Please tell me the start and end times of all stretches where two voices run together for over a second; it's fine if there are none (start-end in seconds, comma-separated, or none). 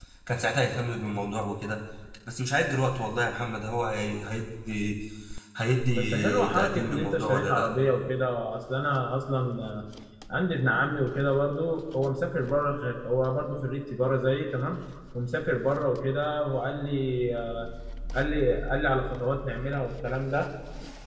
5.9-7.7